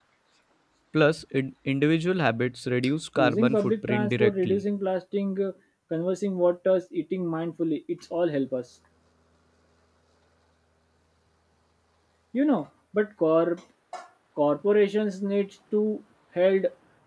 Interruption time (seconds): 3.2 s

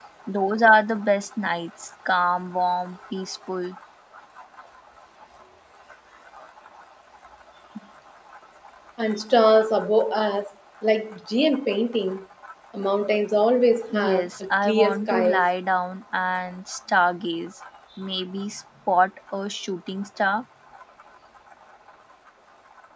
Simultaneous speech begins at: 13.9 s

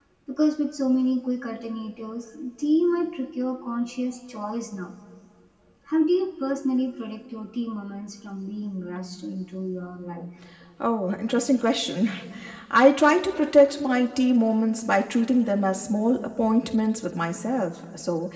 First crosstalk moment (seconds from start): none

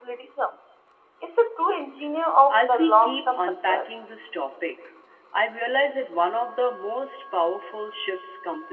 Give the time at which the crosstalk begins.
2.5 s

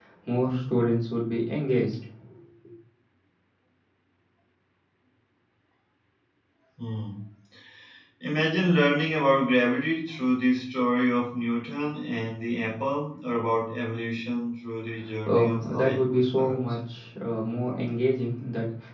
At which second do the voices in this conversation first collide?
15.3 s

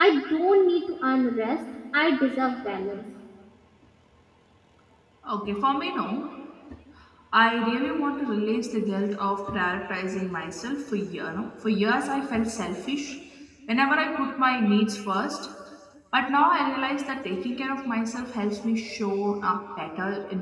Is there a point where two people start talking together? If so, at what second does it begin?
none

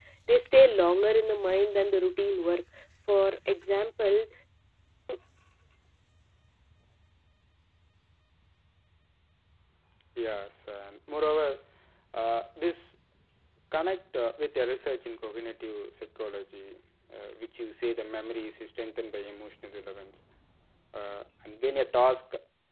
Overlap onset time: none

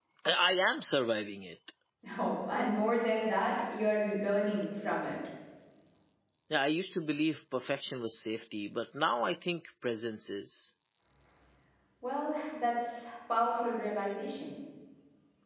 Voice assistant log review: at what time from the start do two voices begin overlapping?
none

